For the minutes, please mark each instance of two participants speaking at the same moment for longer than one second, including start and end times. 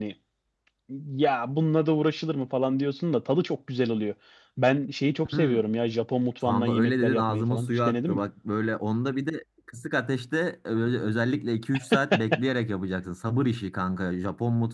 6.4-8.2

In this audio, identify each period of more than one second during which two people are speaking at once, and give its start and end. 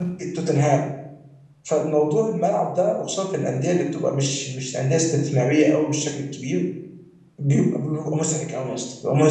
none

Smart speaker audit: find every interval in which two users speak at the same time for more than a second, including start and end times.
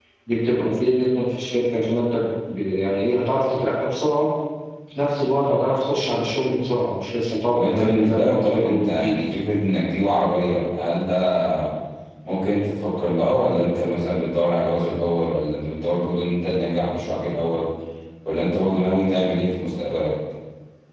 7.5-9.2

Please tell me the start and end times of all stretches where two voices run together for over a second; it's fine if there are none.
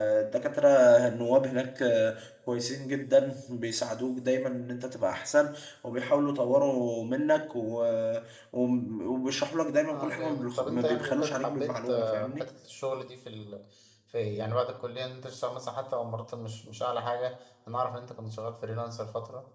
9.9-12.4

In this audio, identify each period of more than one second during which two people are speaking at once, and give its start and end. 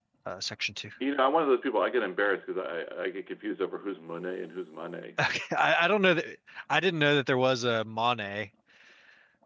none

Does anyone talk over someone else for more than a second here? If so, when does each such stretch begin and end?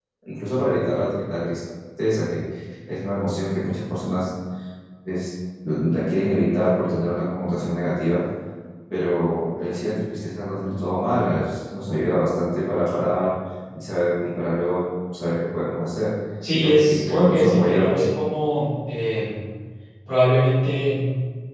16.5-18.0

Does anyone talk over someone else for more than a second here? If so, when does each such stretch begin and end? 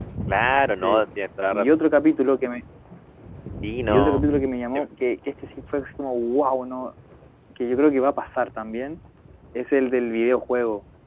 none

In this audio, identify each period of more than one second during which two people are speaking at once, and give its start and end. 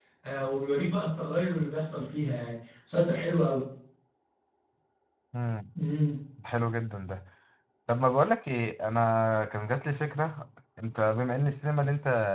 none

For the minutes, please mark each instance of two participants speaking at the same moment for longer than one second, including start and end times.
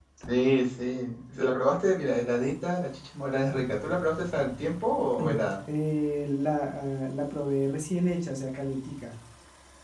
none

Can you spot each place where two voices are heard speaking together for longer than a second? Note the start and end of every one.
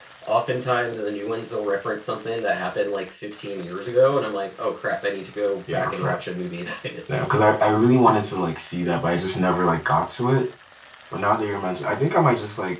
none

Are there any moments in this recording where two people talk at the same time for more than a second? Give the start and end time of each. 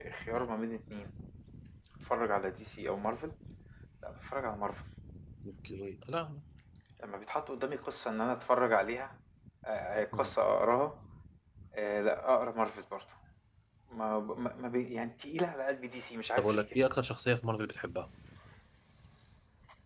none

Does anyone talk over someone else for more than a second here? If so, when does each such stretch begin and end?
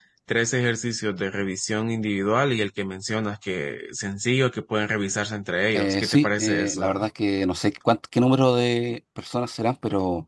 5.7-7.1

